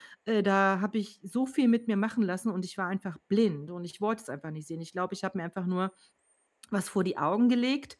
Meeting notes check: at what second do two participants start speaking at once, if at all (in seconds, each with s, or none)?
none